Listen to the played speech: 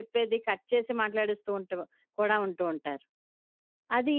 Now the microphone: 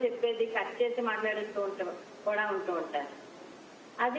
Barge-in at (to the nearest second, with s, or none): none